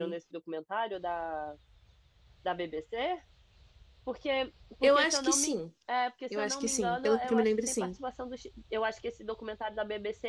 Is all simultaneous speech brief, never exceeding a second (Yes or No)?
No